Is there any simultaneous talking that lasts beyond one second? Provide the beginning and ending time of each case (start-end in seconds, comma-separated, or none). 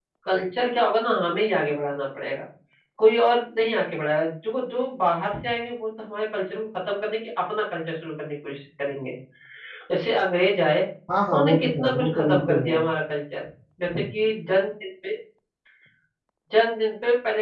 11.3-12.8